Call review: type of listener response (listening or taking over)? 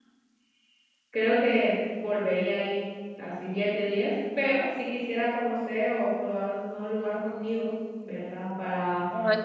listening